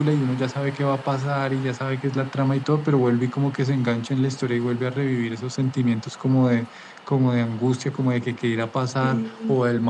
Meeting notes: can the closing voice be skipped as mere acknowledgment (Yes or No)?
Yes